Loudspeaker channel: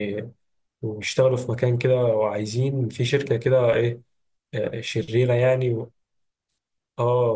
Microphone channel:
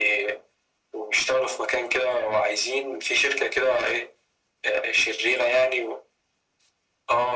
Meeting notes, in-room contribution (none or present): none